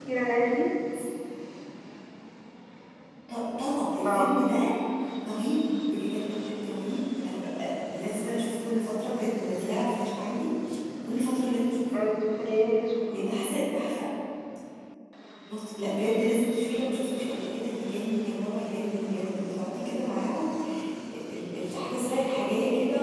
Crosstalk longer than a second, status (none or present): none